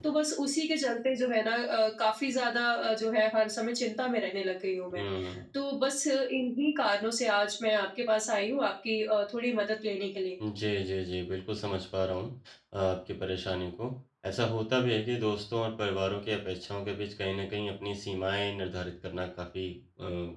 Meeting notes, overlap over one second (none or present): none